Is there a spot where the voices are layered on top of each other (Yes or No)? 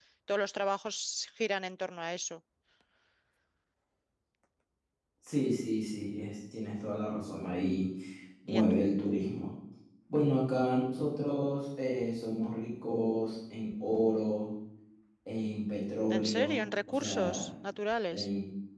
Yes